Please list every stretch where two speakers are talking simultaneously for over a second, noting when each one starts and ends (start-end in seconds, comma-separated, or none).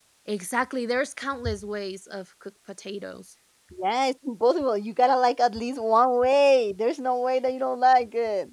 none